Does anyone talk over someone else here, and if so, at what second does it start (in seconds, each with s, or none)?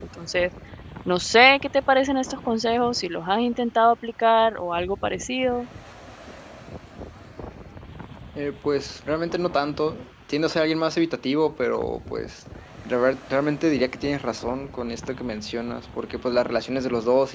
none